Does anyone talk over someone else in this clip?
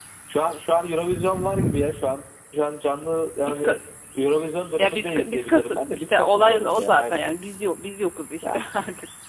Yes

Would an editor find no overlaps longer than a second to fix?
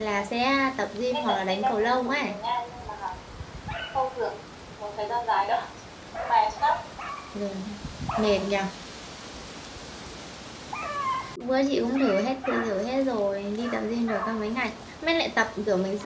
No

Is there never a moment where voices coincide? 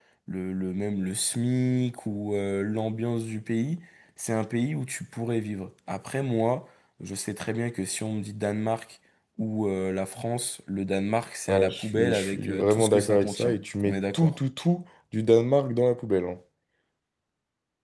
No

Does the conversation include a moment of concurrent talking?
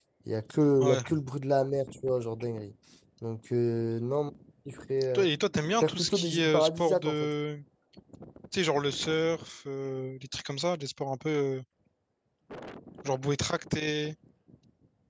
Yes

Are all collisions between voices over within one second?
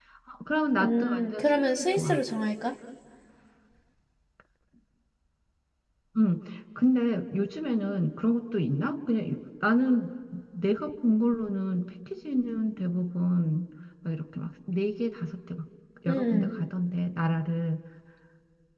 No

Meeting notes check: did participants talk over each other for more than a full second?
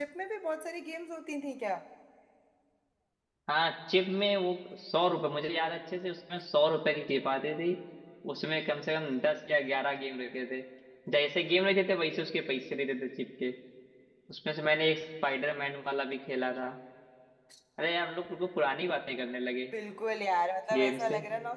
No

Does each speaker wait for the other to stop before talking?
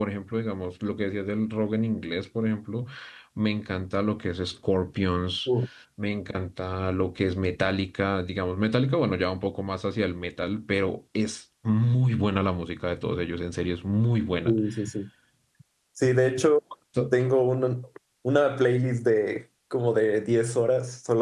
Yes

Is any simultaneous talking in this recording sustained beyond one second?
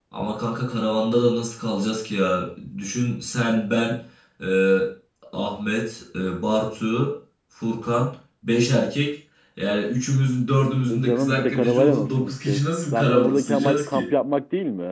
Yes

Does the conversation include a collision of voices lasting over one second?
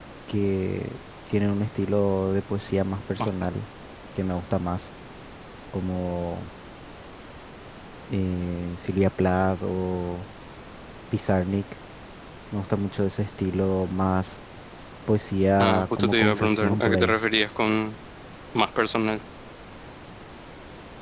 Yes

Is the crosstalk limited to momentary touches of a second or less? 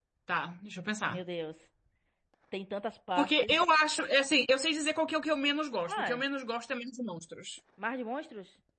Yes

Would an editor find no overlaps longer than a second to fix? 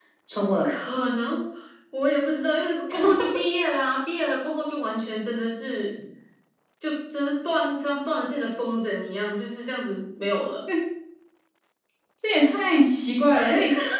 Yes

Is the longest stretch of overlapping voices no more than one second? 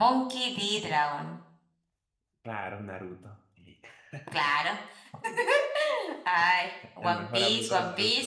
No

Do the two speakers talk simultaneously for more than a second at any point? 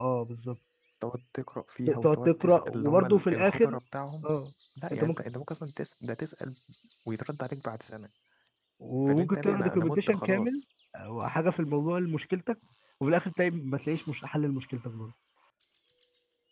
Yes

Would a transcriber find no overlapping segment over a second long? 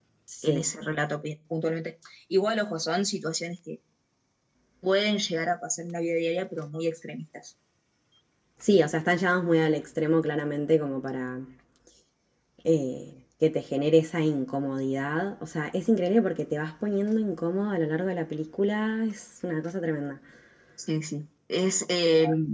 Yes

